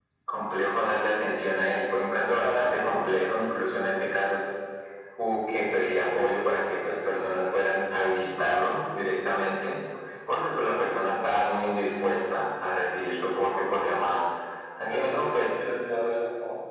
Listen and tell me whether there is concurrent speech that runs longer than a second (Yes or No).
Yes